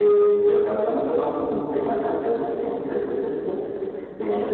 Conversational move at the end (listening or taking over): listening